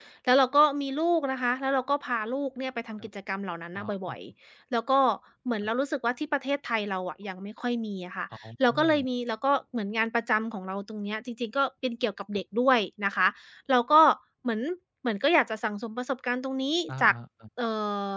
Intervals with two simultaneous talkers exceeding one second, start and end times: none

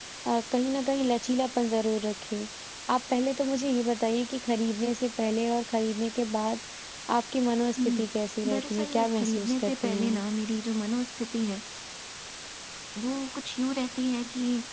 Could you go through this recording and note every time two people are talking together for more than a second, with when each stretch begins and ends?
8.5-10.2

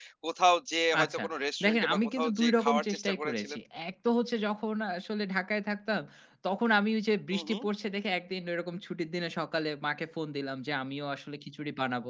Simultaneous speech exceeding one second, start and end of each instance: 1.6-3.6

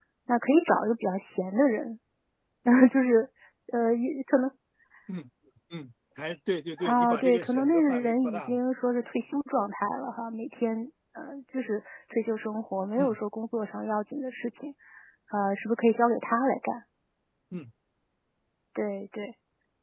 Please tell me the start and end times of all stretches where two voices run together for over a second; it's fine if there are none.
6.8-8.6

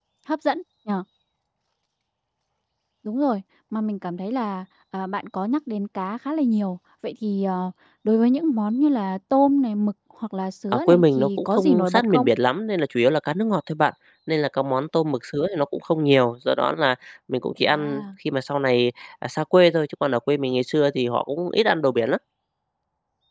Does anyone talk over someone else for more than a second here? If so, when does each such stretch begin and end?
10.7-12.3

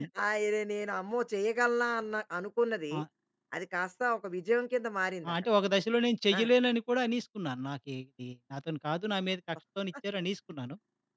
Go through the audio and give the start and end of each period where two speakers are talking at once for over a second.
none

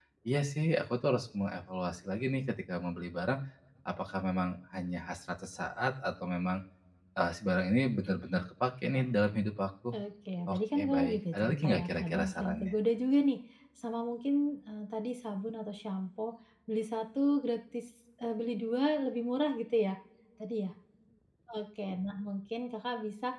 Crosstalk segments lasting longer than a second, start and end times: 10.5-12.7

